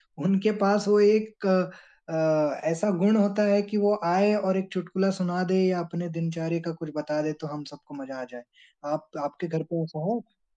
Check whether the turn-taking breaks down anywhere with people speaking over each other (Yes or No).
No